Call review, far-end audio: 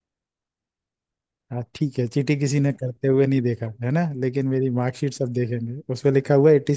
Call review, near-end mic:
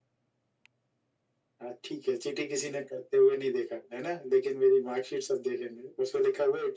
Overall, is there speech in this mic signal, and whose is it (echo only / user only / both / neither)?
echo only